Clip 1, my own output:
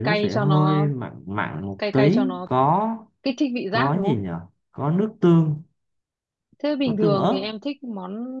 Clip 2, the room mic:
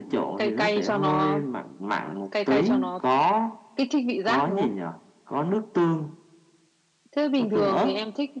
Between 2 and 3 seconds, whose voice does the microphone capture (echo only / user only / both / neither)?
echo only